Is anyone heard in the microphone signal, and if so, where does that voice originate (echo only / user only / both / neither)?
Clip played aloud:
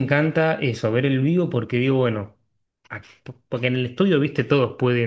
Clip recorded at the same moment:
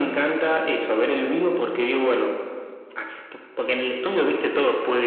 echo only